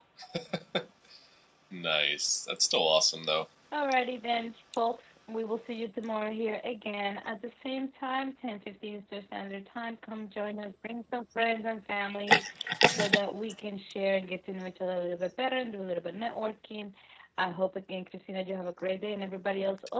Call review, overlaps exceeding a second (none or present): none